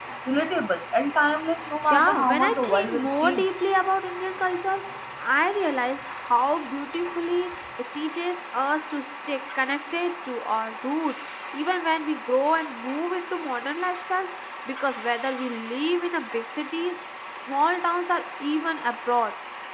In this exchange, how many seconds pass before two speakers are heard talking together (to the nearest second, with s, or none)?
2 s